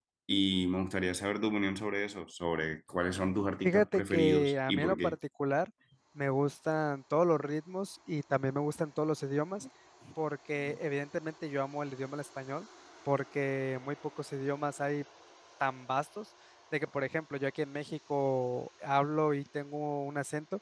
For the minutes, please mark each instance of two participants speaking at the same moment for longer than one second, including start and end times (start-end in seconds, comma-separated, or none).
3.6-5.2